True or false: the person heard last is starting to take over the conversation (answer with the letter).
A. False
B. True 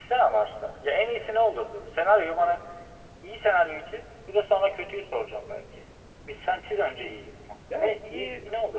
B